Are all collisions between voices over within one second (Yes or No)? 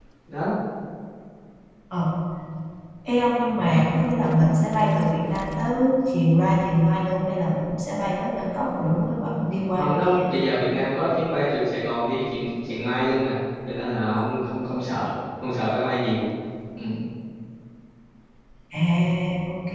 Yes